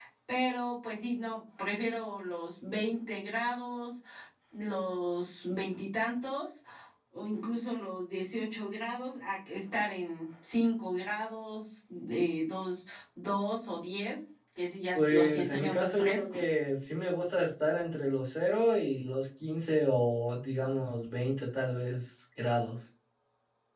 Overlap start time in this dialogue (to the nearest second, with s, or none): 15 s